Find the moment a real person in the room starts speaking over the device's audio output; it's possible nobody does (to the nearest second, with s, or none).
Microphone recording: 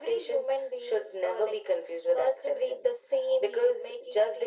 none